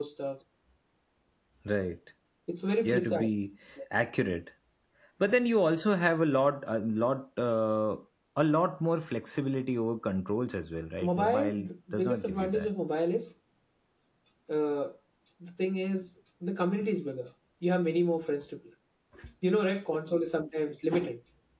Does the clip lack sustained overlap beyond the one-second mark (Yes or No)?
No